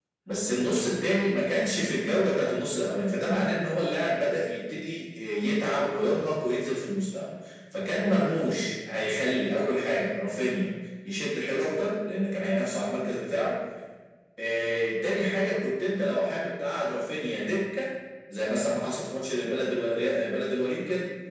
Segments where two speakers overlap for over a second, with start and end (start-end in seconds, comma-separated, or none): none